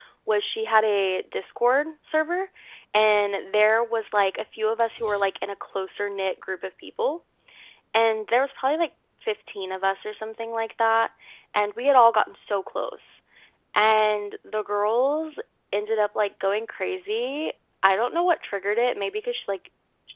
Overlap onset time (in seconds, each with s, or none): none